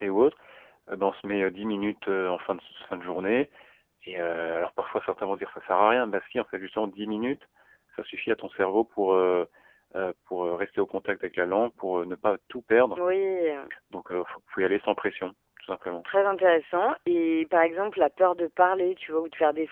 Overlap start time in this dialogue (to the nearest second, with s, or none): none